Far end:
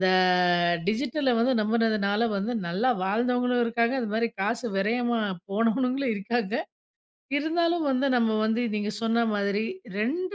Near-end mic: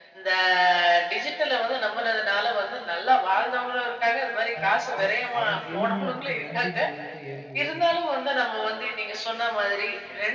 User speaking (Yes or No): Yes